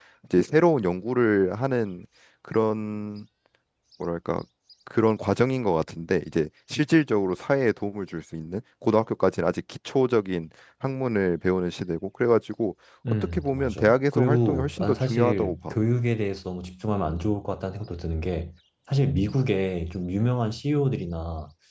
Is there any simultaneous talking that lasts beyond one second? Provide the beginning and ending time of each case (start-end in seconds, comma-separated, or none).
13.1-15.7